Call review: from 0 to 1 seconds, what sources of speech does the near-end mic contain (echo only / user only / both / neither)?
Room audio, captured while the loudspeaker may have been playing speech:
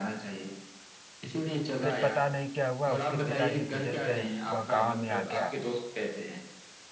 echo only